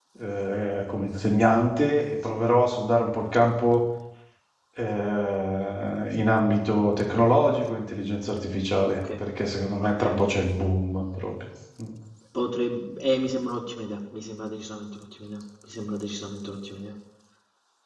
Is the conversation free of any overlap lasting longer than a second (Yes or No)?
Yes